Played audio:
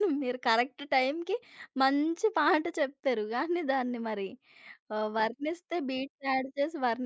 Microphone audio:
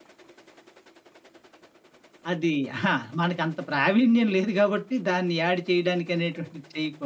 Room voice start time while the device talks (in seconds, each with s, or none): 2.3 s